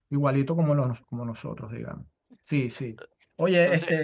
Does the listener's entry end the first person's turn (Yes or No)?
No